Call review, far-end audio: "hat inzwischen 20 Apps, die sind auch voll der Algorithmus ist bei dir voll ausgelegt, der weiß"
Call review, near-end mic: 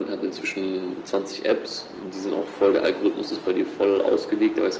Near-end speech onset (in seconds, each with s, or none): none